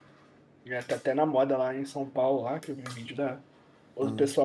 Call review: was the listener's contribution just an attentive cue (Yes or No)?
Yes